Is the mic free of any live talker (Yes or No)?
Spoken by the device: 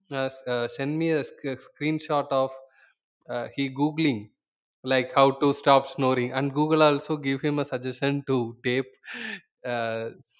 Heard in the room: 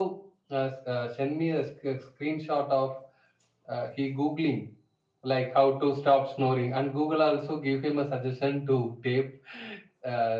Yes